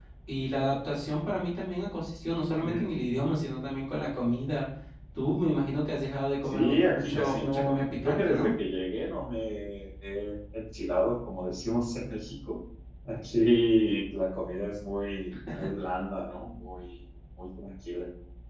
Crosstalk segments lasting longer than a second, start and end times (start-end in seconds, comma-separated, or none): 6.5-8.5